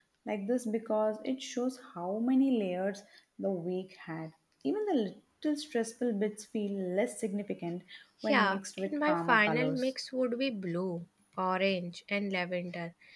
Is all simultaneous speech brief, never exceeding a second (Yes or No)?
No